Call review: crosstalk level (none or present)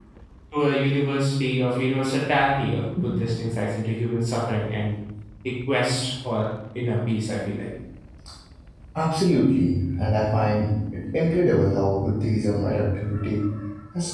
none